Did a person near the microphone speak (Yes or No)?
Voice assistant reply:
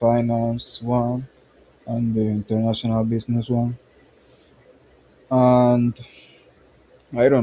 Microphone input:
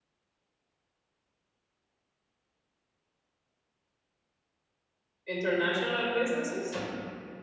Yes